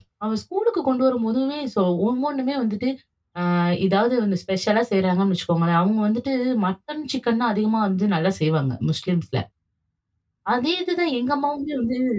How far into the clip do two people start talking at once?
none

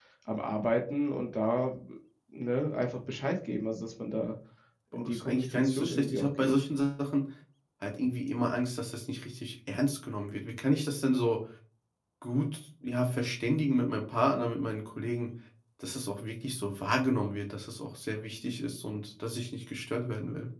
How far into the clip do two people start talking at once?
5 s

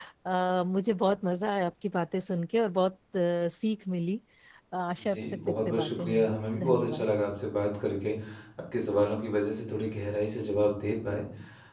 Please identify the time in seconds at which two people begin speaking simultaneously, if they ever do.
5 s

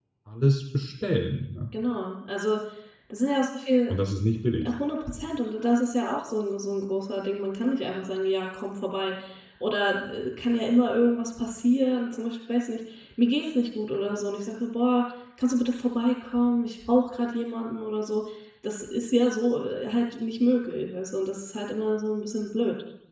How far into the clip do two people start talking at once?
none

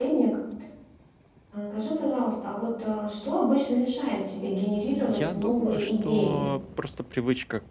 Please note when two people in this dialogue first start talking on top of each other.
5 s

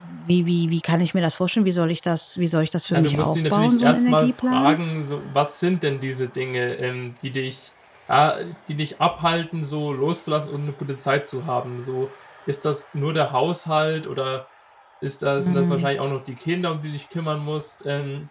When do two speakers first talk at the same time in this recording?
3 s

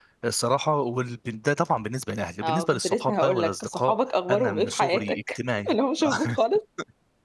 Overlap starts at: 2 s

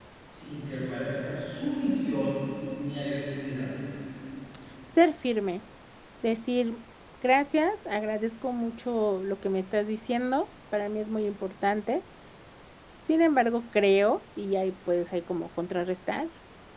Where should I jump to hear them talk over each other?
none

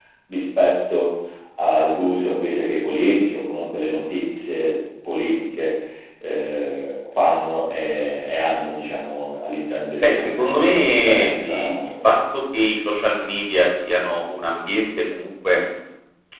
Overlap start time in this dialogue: 10 s

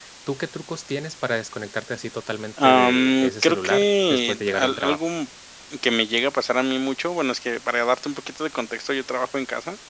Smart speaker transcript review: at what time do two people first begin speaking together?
3 s

